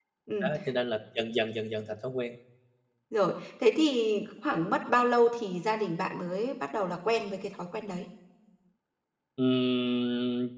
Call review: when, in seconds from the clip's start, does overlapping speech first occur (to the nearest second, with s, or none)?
none